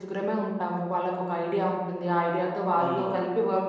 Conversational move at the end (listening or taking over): listening